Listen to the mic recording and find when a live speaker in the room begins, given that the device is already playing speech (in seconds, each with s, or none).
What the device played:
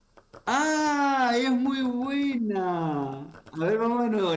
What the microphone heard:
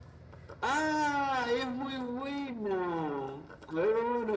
none